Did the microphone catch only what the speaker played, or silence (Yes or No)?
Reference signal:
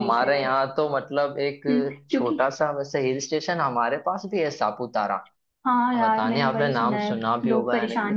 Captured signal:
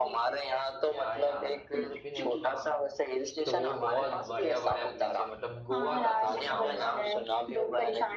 No